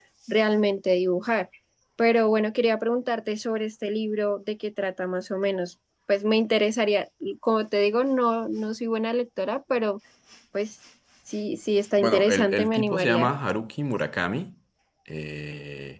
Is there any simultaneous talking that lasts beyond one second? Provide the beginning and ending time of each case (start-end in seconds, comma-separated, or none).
12.0-13.3